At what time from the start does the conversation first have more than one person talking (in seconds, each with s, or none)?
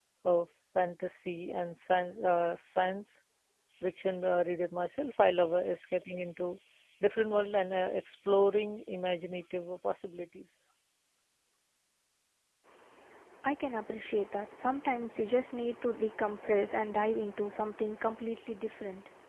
none